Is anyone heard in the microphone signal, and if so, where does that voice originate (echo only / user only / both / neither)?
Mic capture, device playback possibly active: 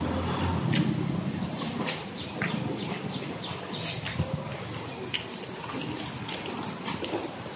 neither